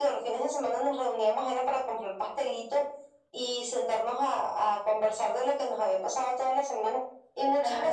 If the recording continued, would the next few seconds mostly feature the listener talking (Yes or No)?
No